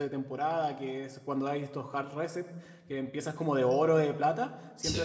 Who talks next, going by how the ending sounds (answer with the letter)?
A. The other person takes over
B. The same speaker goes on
B